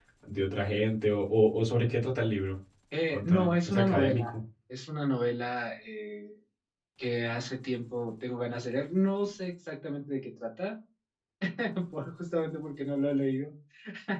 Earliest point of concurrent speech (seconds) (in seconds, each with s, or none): 3.1 s